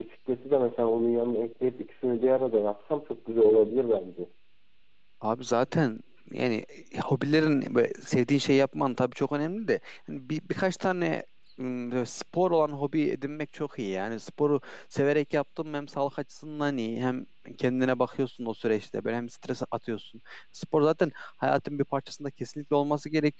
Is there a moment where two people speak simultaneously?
No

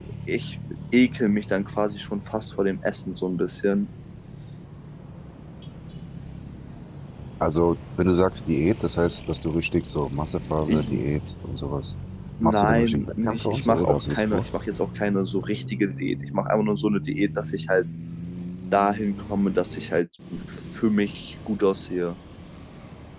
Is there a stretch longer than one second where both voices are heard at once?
Yes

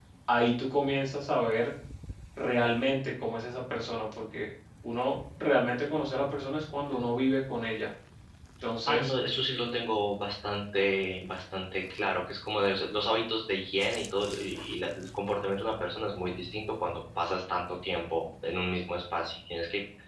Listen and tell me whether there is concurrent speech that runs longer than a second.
No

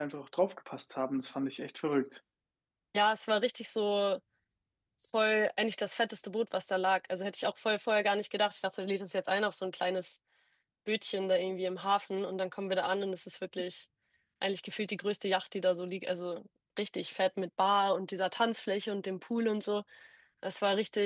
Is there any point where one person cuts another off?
No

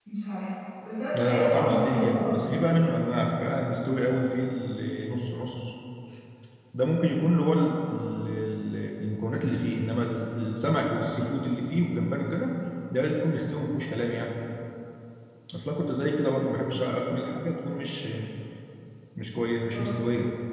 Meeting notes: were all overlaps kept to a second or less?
No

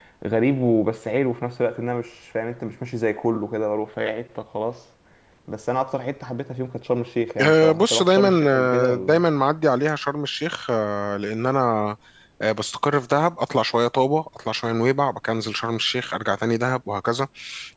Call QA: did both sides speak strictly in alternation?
No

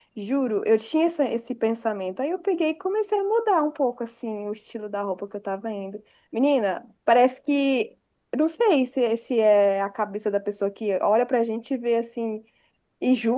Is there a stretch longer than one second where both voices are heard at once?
No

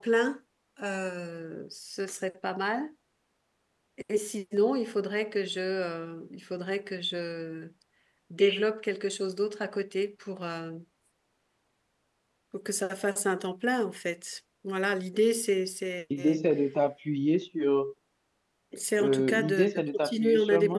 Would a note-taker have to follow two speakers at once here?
Yes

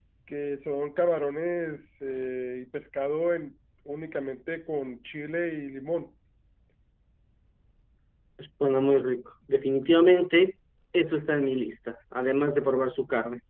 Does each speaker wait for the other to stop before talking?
Yes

